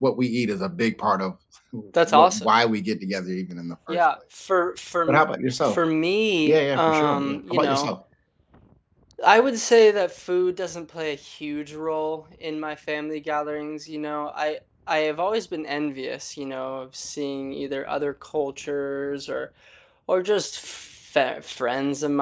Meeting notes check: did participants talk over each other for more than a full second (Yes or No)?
Yes